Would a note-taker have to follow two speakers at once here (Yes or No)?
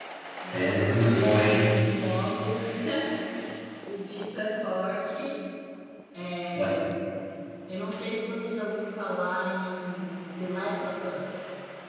Yes